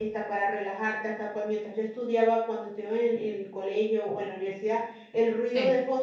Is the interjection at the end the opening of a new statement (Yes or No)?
No